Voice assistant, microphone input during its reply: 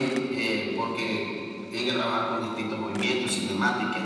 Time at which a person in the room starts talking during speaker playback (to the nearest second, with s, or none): none